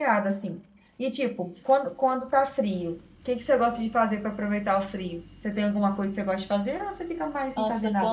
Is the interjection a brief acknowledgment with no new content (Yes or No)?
No